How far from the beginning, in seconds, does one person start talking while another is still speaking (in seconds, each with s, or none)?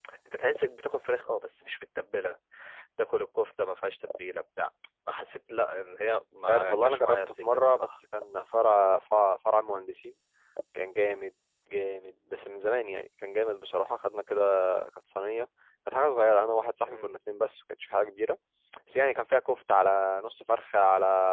6.5 s